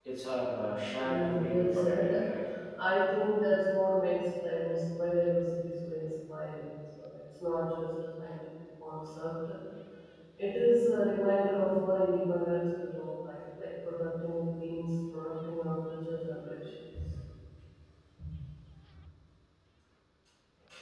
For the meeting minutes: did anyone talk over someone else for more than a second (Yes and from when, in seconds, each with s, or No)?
Yes, from 1.0 s